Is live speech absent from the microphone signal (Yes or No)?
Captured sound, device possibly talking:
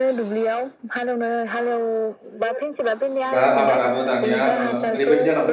No